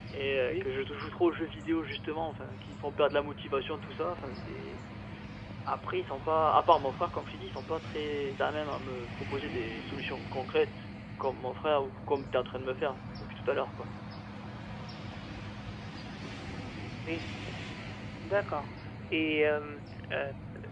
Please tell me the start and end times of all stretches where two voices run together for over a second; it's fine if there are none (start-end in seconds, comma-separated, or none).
none